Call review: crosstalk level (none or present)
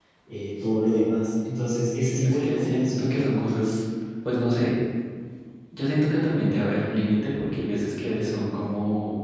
present